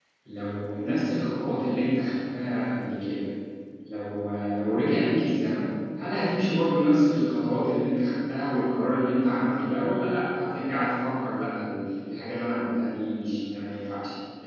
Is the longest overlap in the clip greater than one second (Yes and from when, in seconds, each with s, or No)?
No